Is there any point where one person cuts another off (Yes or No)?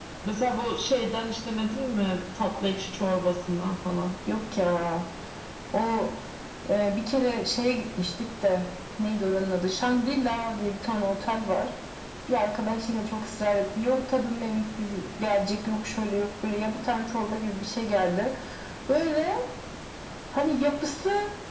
No